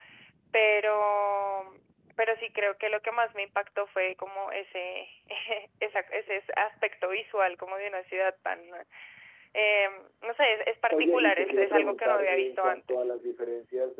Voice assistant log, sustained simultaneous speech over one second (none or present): present